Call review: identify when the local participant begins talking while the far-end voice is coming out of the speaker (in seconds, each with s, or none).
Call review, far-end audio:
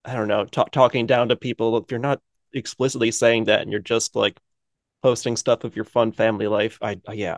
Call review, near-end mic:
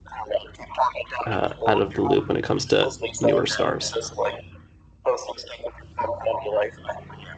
1.2 s